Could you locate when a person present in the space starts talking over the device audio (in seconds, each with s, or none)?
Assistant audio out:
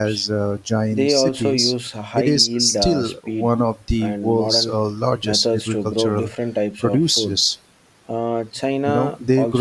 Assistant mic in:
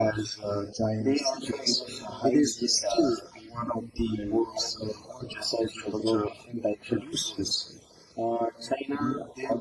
none